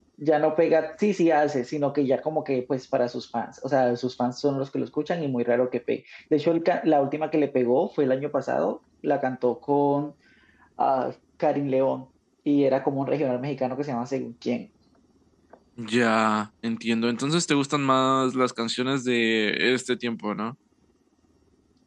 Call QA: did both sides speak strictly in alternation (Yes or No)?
Yes